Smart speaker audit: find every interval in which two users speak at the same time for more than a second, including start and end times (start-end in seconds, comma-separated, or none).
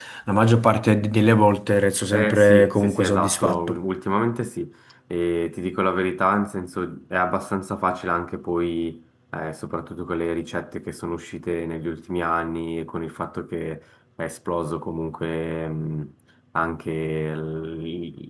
2.1-3.8